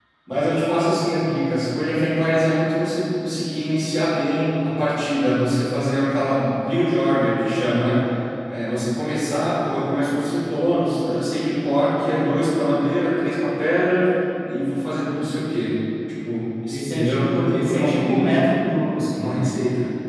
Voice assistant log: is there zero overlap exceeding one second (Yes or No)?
No